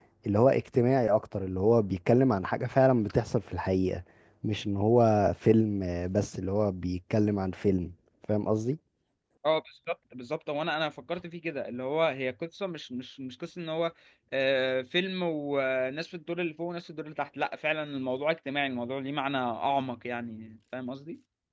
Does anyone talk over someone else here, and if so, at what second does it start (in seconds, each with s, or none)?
none